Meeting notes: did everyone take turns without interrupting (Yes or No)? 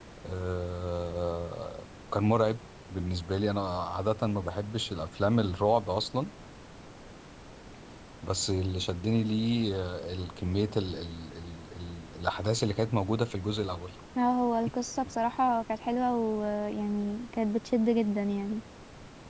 Yes